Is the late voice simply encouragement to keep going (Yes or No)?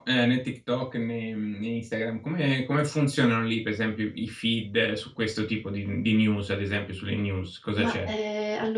No